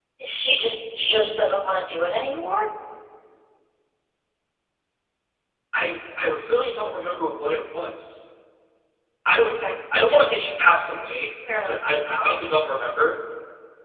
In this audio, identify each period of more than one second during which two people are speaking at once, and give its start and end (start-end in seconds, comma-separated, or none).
none